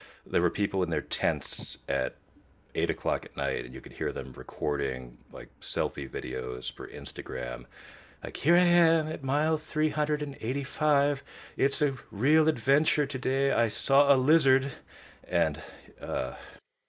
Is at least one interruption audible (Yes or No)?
No